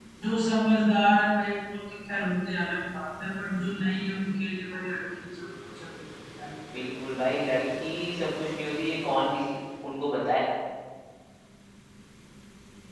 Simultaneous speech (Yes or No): No